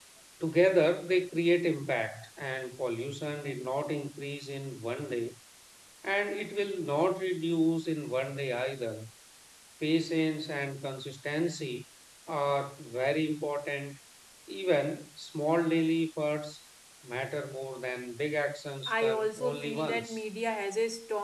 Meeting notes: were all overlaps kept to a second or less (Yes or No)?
No